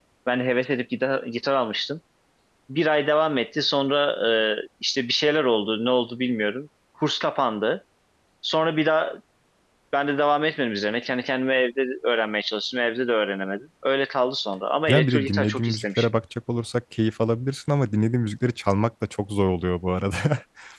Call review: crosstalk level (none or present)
present